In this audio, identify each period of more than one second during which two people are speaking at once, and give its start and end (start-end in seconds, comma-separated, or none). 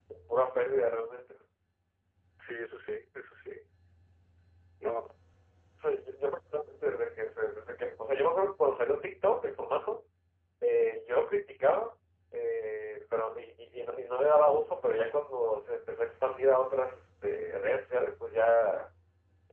none